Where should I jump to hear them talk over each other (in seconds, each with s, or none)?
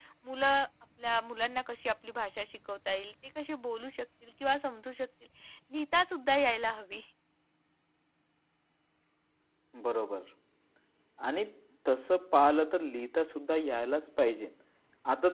none